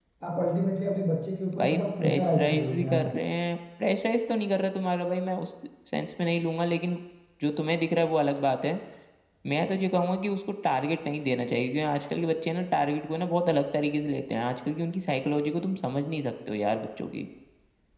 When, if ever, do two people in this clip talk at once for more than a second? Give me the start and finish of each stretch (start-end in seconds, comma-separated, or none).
1.6-3.0